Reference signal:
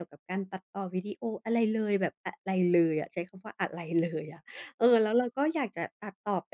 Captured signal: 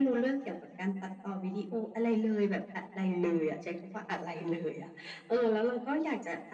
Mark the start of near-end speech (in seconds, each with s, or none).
none